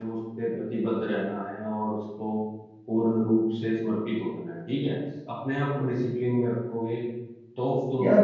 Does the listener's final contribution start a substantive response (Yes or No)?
Yes